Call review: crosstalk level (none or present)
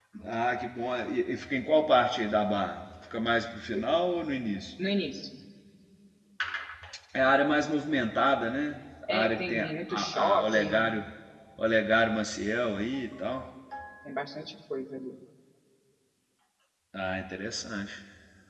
present